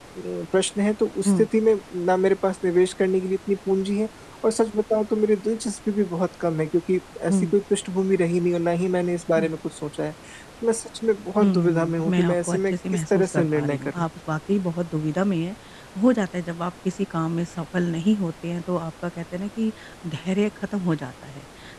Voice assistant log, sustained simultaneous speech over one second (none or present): present